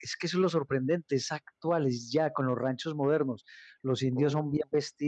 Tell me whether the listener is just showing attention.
Yes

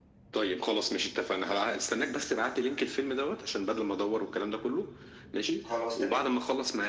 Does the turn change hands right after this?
No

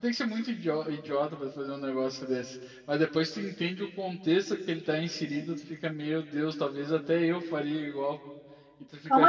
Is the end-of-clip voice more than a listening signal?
Yes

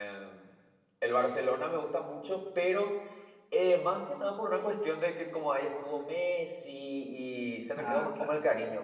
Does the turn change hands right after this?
No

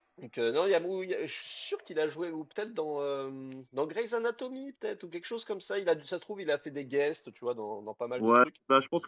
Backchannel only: No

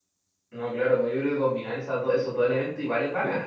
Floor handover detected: Yes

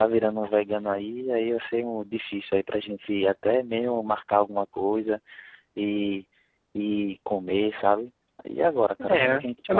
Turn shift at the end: Yes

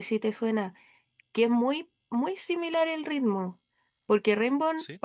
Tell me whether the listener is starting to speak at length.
No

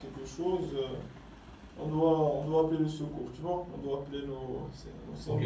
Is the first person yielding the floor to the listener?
Yes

